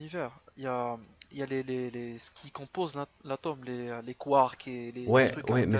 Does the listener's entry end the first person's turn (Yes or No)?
Yes